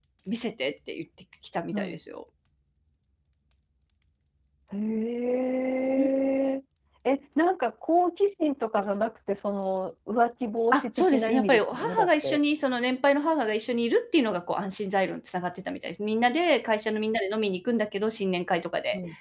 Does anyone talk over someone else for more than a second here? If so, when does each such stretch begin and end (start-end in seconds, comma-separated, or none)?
10.7-12.4